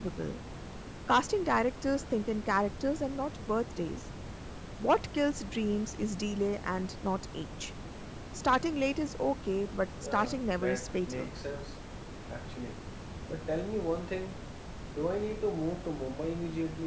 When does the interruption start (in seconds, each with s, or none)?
10.0 s